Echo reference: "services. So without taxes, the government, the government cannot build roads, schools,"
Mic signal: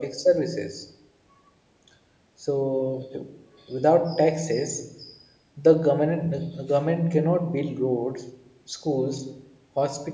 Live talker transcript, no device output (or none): none